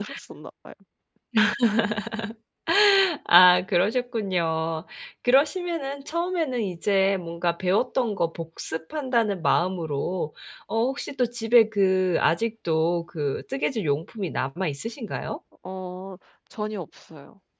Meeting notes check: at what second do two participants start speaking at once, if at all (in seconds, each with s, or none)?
none